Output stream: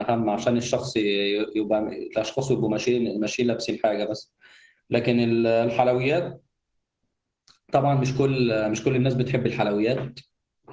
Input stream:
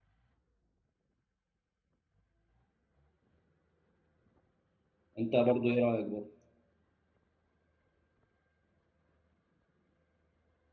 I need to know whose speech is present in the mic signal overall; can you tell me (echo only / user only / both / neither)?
user only